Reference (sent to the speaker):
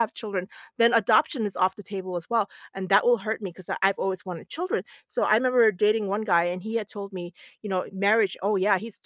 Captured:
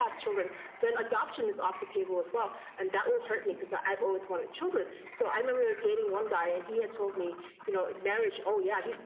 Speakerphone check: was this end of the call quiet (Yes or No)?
Yes